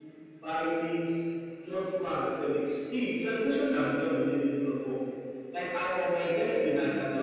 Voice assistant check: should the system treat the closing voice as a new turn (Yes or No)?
No